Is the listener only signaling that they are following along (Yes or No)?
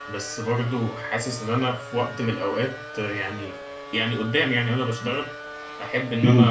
Yes